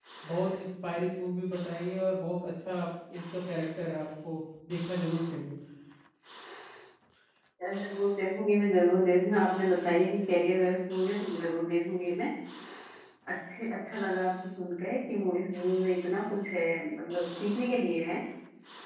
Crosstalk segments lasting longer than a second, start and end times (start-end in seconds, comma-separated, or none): none